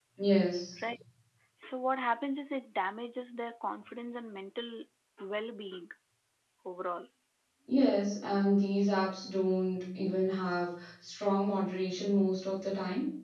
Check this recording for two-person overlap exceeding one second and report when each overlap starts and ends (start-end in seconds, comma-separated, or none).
none